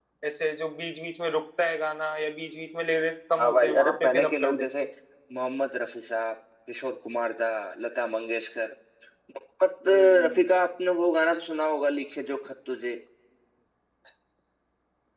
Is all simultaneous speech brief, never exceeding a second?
No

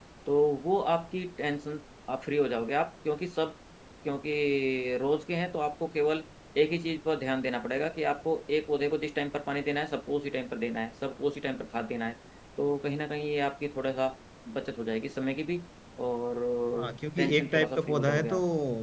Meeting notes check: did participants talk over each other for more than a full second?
Yes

